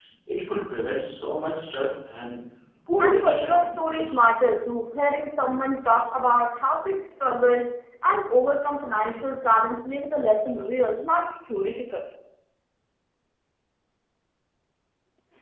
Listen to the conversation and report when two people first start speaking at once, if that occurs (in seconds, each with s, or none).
3.0 s